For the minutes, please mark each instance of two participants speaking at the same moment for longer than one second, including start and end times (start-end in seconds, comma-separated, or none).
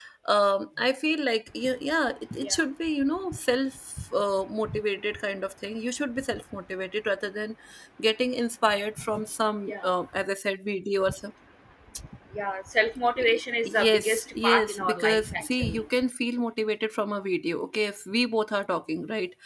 13.8-15.8